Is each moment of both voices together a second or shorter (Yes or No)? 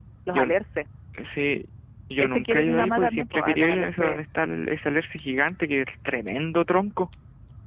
No